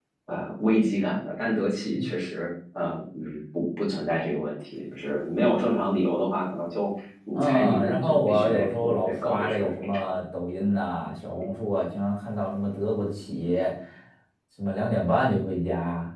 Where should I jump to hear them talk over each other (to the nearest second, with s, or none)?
7 s